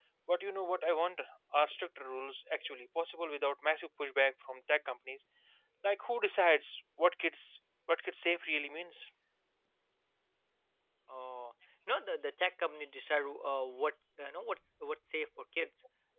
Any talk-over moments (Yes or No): No